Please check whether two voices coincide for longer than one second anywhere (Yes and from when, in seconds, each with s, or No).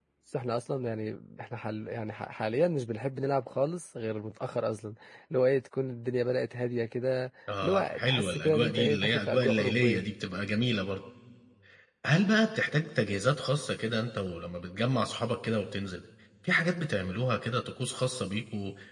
Yes, from 7.5 s